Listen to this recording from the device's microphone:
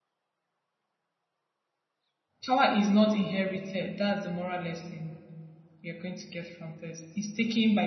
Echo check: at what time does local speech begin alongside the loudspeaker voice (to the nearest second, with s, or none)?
2 s